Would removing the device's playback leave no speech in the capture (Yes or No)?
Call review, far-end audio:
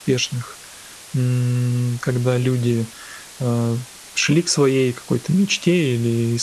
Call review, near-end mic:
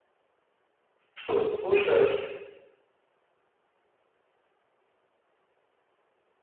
No